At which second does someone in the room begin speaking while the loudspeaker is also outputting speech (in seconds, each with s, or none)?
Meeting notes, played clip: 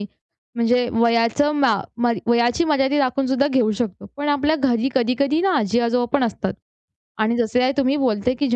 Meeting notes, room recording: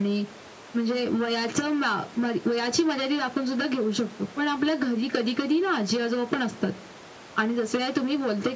none